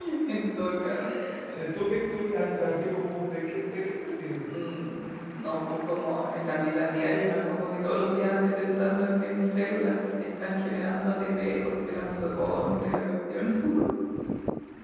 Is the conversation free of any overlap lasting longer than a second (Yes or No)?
Yes